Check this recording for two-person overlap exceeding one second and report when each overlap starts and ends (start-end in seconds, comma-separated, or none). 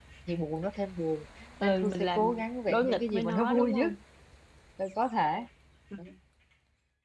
1.6-3.9